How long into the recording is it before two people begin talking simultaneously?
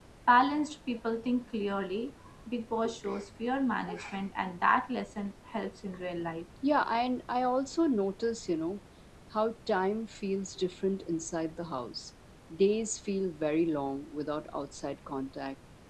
none

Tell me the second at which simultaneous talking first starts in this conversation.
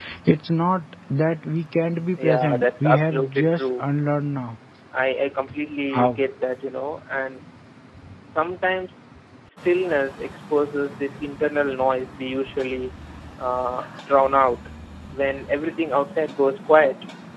2.2 s

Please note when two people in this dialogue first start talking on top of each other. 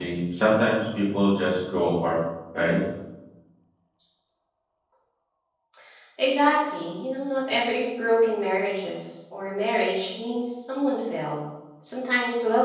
none

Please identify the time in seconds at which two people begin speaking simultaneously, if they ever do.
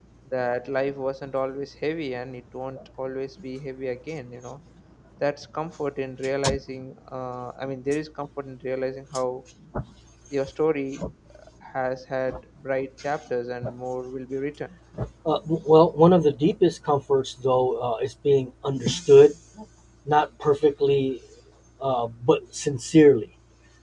none

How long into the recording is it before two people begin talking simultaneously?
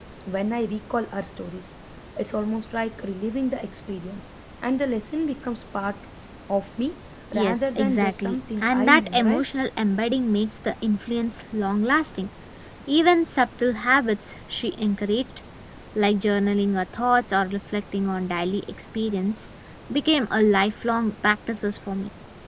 7.3 s

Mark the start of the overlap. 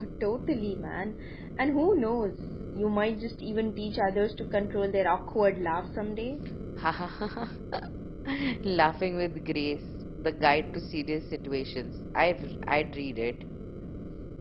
none

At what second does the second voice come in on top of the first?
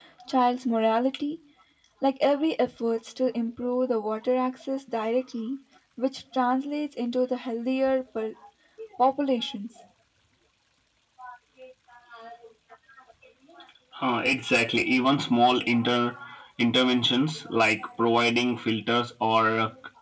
none

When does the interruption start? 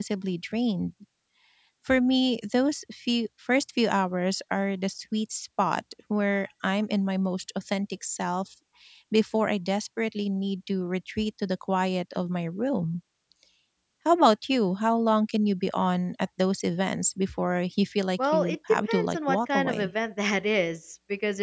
18.2 s

